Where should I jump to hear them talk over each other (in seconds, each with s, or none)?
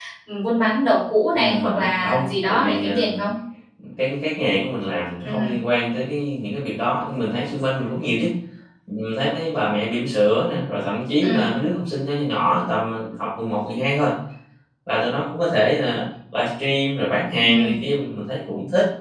1.3 s